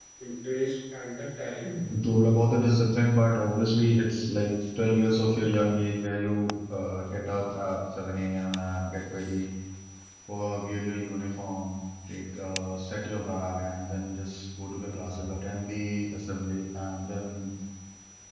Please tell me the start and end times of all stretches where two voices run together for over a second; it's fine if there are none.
none

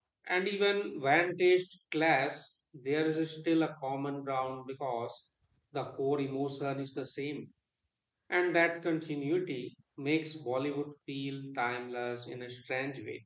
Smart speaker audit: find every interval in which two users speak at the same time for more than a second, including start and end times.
none

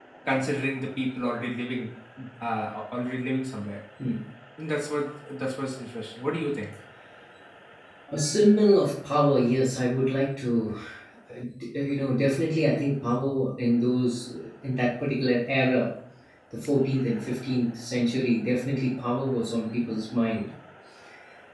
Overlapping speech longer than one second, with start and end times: none

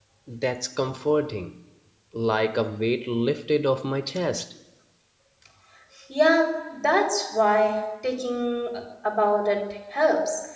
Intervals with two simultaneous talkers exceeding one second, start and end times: none

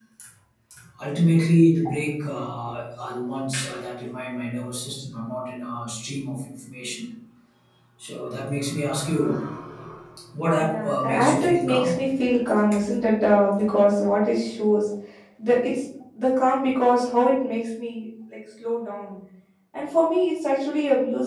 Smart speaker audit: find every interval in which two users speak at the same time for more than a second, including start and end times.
10.5-12.0

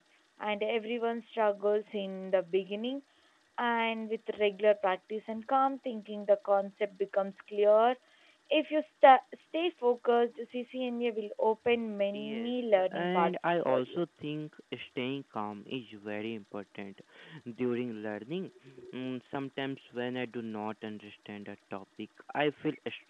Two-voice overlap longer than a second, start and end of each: 12.1-14.0

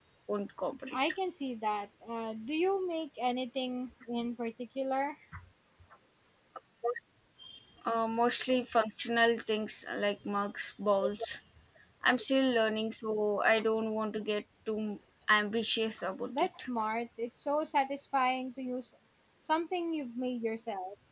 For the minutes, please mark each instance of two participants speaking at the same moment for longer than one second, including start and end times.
none

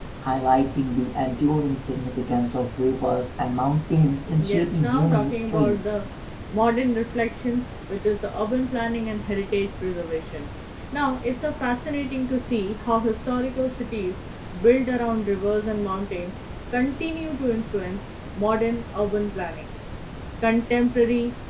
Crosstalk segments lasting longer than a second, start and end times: 4.4-5.8

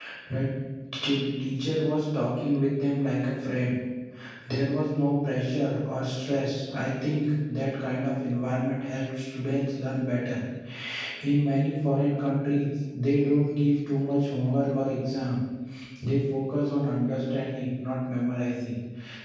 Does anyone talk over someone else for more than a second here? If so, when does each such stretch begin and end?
none

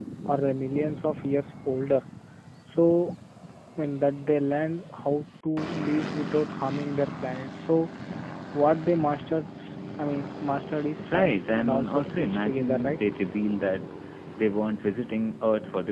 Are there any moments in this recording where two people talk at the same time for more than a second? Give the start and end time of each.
11.1-13.0

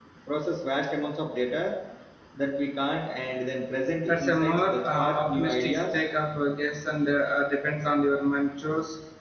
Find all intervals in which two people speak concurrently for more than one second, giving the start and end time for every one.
4.1-5.8

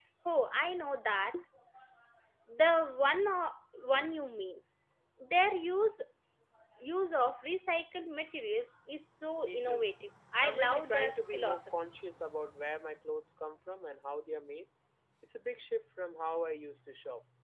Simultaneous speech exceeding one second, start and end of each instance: 10.4-11.7

